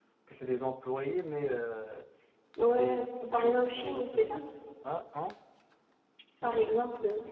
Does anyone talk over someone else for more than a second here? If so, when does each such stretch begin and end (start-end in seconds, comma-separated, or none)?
2.6-4.3